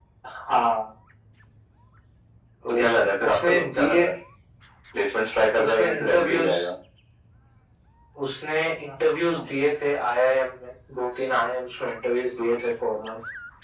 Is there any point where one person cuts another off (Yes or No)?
Yes